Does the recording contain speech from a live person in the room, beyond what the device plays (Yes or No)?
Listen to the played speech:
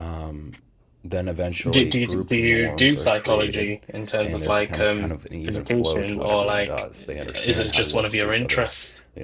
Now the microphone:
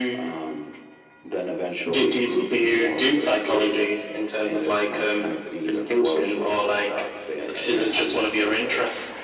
No